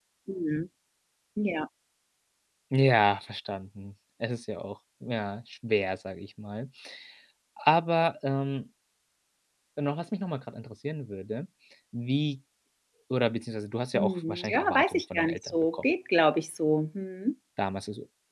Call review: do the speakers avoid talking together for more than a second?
No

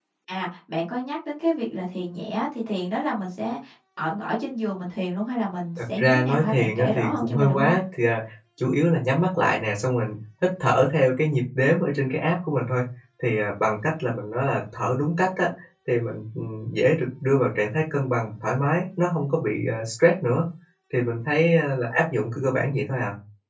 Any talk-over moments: Yes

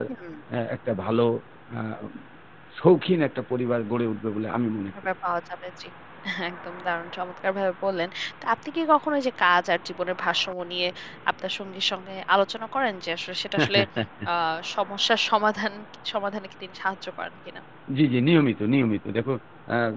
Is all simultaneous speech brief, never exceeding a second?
Yes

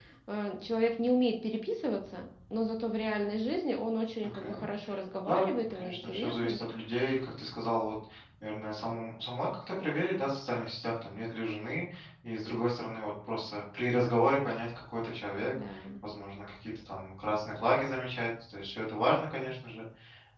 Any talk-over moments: Yes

